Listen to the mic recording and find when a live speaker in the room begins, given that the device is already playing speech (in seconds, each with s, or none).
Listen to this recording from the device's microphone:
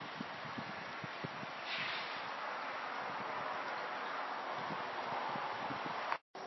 none